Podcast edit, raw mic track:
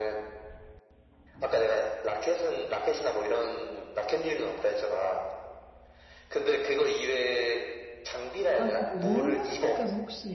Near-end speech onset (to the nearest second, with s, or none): 9 s